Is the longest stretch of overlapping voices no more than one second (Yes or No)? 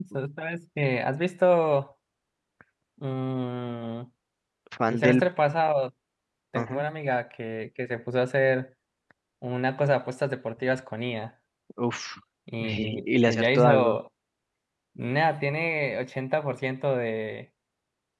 No